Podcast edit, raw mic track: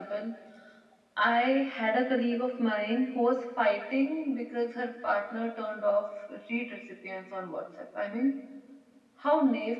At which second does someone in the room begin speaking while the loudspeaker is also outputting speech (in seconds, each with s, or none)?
none